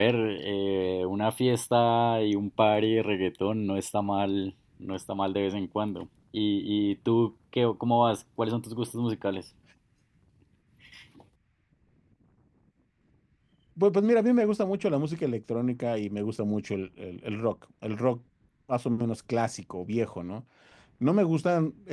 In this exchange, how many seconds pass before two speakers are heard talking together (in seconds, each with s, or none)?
none